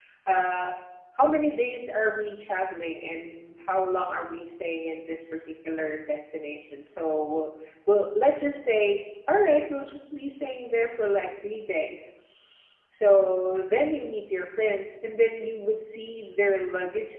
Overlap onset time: none

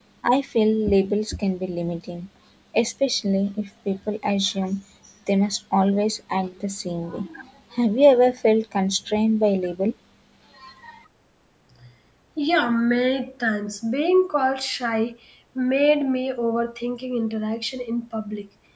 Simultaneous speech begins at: none

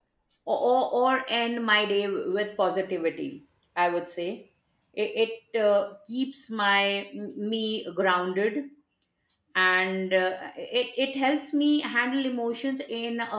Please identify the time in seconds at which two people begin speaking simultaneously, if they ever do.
none

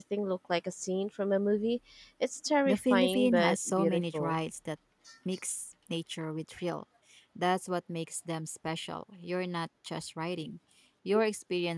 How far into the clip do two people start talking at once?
2.6 s

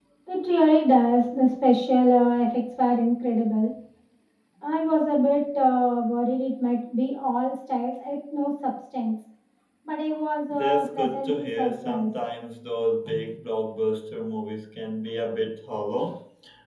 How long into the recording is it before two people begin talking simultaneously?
10.5 s

